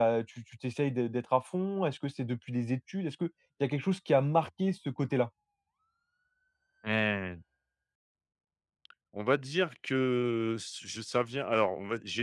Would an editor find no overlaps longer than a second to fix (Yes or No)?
Yes